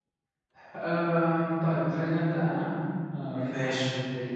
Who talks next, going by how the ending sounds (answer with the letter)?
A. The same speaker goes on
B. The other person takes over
A